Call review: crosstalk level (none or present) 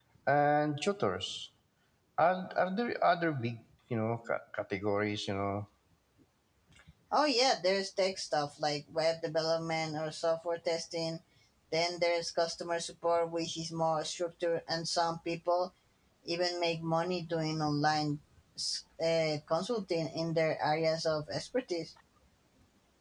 none